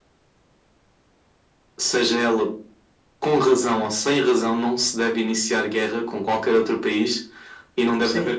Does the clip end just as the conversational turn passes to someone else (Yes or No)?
No